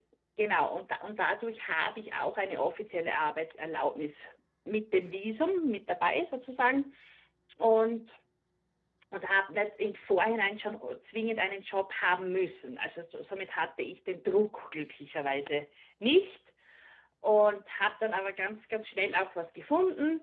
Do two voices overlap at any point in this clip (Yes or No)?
No